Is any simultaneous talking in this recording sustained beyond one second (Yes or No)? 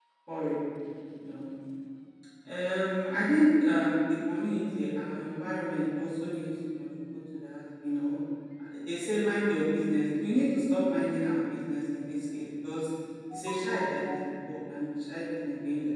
No